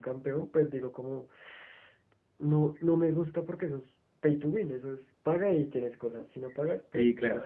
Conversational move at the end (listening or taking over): taking over